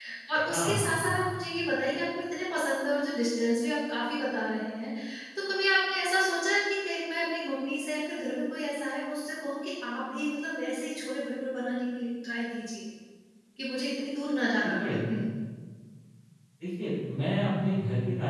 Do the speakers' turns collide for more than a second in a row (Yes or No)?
No